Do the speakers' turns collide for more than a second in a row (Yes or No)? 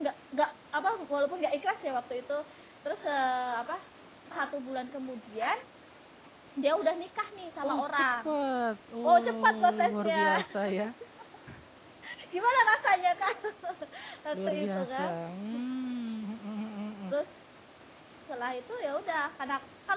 Yes